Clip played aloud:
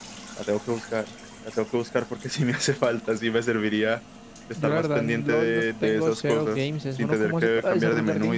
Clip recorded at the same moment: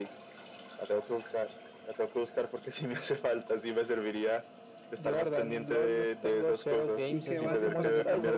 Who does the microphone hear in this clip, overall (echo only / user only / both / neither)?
both